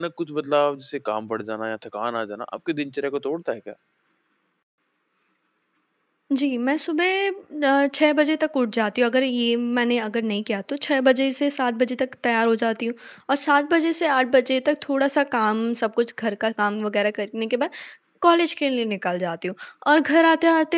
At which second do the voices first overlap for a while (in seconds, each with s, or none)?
none